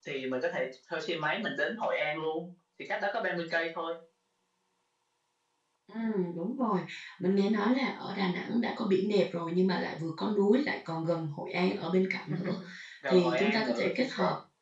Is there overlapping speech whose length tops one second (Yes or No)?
Yes